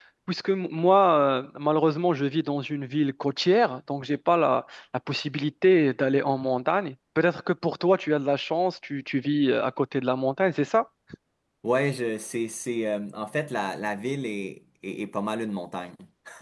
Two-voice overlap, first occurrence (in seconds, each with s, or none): none